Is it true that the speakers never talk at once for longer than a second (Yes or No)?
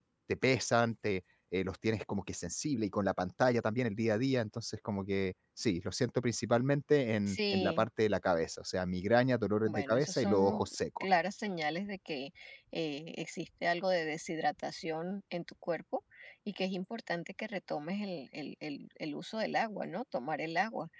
No